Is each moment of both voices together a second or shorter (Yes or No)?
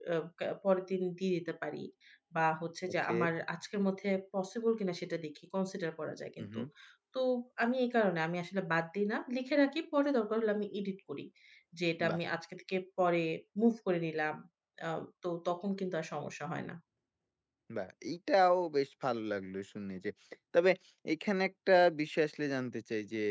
Yes